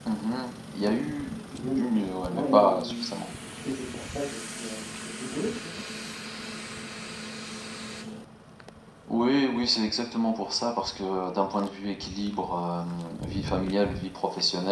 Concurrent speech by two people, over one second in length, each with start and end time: 1.8-3.2

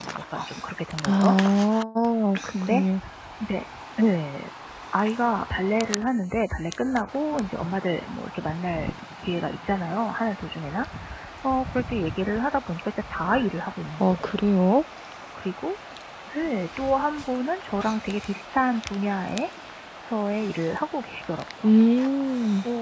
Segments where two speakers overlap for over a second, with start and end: none

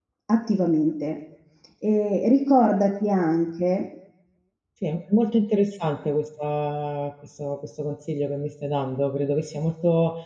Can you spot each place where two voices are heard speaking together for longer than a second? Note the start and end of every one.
none

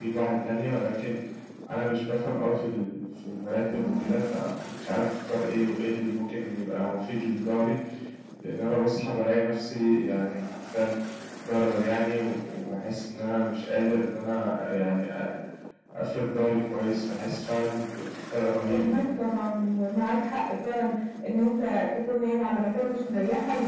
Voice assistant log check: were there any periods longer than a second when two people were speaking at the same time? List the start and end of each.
none

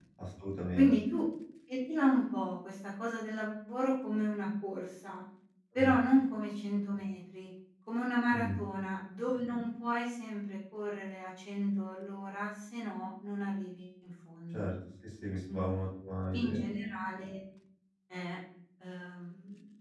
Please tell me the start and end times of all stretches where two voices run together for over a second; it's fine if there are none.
none

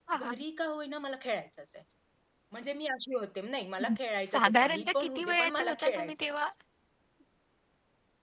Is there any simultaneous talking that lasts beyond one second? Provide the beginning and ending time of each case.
4.3-6.3

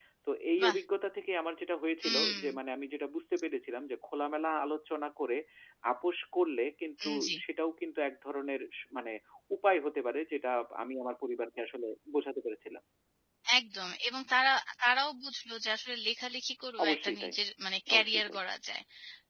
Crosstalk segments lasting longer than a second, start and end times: none

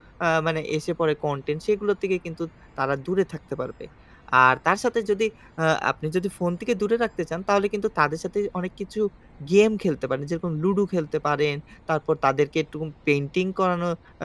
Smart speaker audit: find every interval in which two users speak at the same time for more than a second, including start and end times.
none

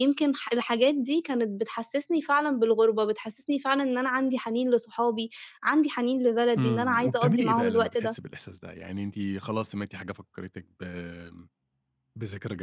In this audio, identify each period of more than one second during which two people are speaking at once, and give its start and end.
6.6-8.1

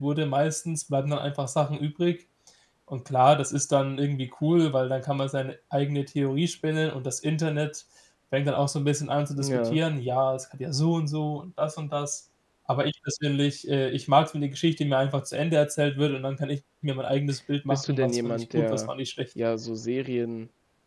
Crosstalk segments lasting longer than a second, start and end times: 17.7-18.9

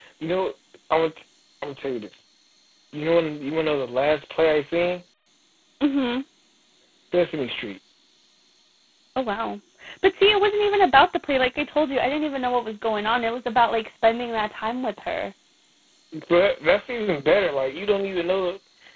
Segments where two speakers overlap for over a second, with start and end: none

